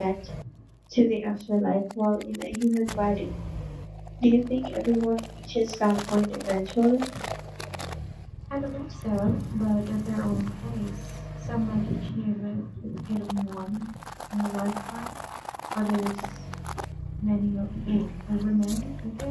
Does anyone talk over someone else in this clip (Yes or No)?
No